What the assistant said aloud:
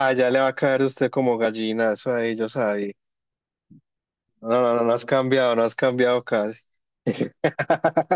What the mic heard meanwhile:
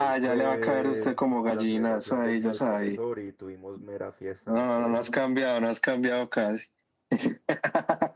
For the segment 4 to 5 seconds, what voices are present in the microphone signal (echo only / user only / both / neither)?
both